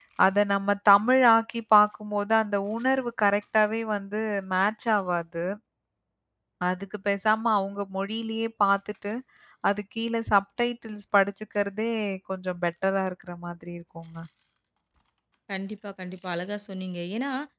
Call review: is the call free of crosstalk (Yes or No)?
Yes